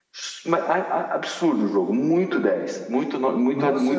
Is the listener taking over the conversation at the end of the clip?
Yes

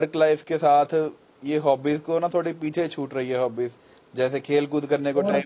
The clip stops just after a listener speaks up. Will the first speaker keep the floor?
Yes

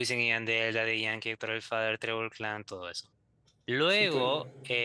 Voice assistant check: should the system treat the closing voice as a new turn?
No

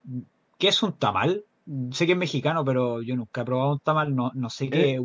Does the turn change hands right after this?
Yes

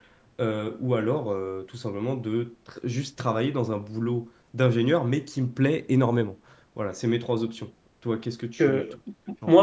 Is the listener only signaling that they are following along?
No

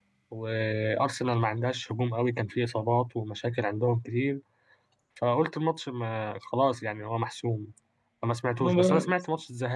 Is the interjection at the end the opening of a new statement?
No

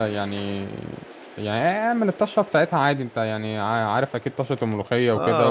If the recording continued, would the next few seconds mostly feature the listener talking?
Yes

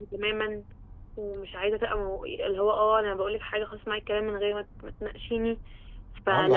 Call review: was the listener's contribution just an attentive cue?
Yes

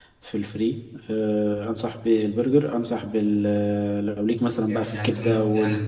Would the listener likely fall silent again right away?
No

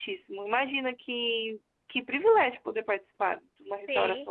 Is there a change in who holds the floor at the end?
Yes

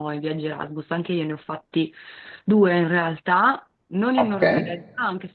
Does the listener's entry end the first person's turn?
No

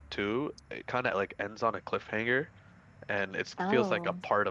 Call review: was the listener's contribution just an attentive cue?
Yes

